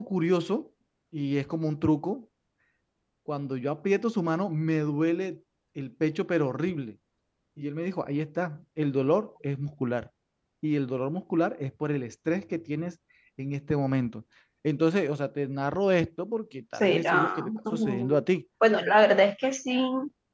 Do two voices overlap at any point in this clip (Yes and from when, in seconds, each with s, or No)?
Yes, from 16.8 s